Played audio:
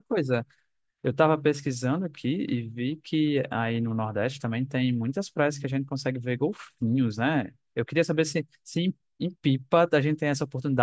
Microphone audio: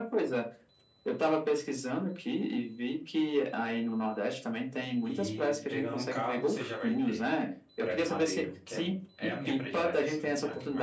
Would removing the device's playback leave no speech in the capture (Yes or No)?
No